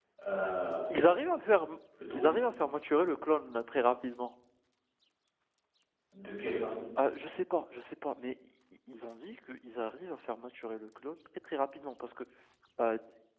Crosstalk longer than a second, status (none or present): none